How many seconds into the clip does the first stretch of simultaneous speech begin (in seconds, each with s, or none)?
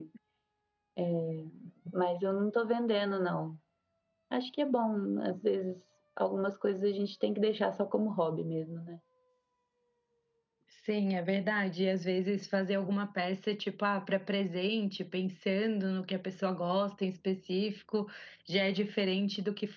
none